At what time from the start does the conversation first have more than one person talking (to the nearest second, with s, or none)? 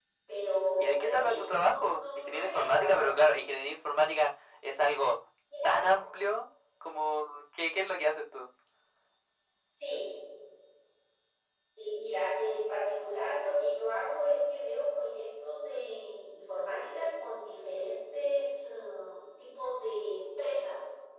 1 s